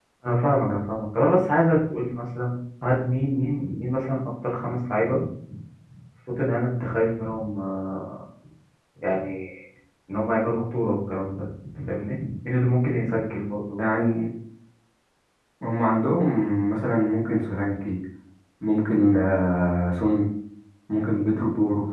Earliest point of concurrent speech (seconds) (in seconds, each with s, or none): none